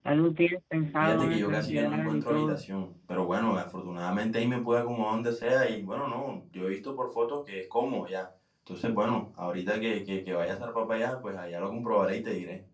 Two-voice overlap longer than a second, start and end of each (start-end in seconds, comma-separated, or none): 1.0-2.6